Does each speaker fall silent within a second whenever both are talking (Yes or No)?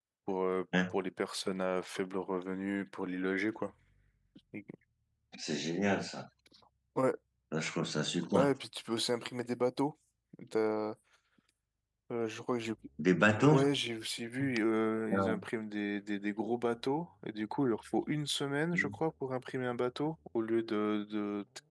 Yes